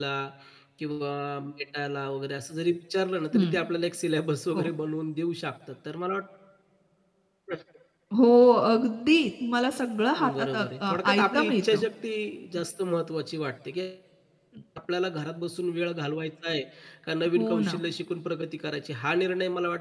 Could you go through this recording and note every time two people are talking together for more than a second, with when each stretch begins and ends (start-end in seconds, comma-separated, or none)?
10.2-11.8